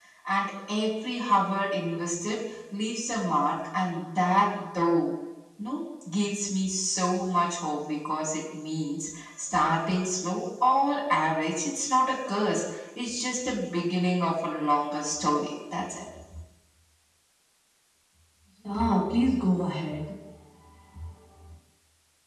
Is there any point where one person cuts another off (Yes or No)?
No